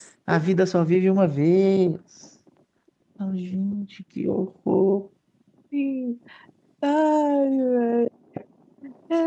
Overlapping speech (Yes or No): No